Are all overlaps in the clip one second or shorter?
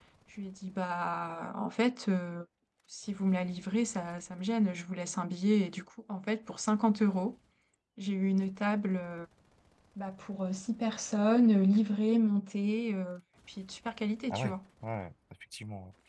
Yes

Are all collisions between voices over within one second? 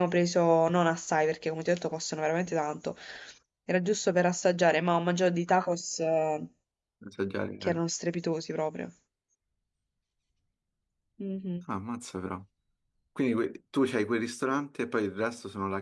Yes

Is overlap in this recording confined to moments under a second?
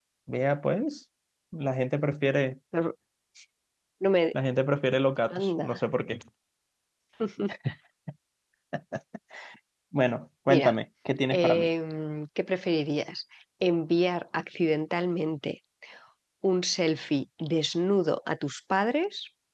Yes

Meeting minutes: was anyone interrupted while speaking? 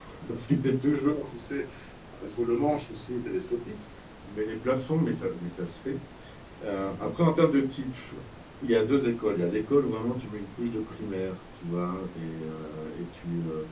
No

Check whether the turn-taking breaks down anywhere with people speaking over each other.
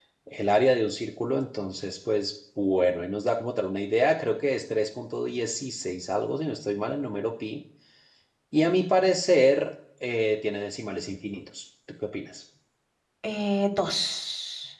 No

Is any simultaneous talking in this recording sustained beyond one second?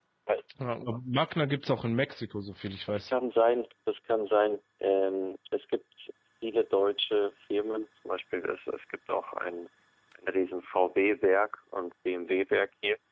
No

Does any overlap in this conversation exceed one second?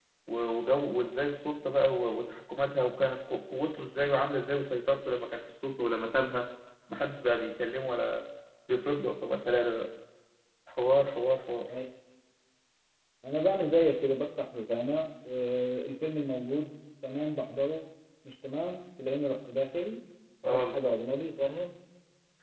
No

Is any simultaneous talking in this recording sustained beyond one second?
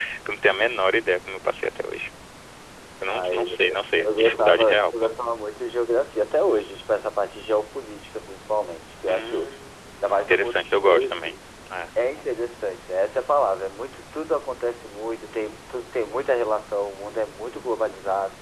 Yes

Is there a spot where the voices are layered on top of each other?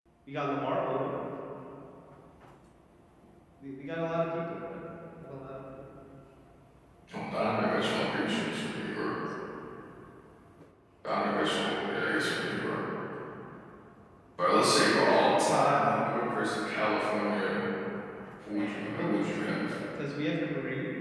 Yes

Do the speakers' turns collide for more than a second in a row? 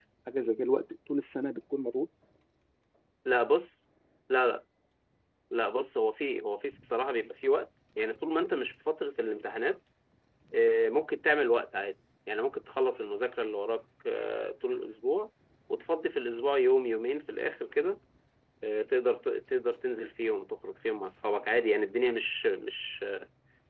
No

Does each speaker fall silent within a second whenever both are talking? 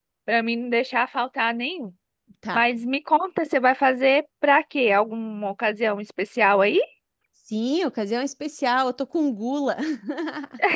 Yes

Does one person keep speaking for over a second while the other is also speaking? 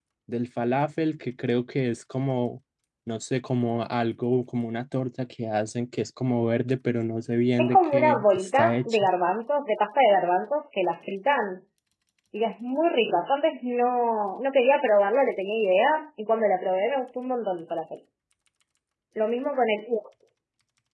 Yes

